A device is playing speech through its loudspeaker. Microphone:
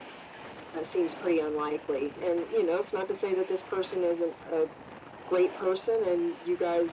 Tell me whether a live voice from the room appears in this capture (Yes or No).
No